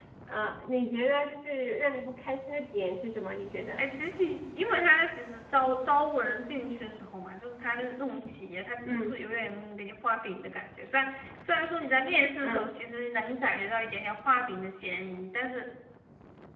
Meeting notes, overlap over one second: none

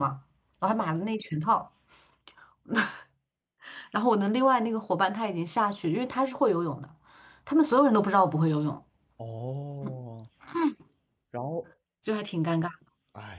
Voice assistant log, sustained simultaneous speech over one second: none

